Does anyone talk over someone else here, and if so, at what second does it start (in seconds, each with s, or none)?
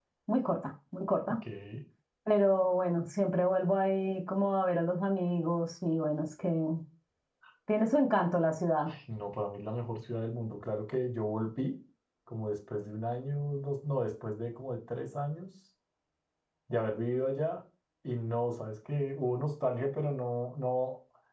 none